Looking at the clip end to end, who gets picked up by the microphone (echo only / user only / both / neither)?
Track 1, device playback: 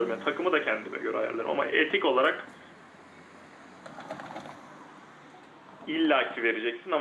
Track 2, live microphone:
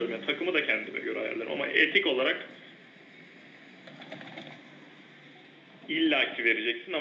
echo only